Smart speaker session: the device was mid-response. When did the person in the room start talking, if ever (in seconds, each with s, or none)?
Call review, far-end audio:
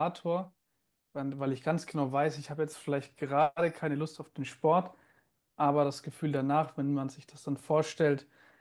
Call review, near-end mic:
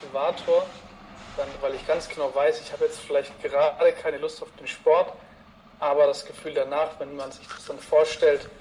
none